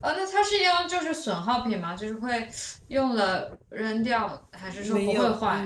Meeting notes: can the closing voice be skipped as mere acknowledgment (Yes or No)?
No